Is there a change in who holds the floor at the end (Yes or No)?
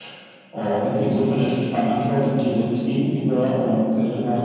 No